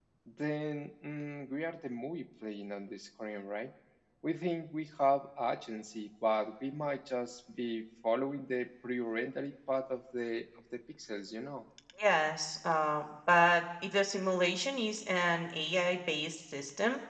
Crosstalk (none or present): none